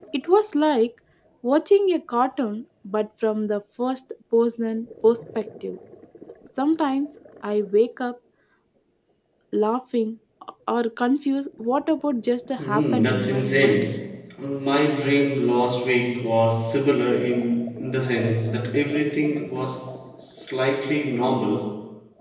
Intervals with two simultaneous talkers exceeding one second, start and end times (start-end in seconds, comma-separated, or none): 12.6-14.0